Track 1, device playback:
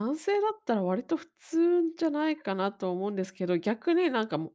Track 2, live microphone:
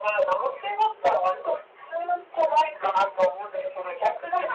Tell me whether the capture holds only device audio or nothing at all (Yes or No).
Yes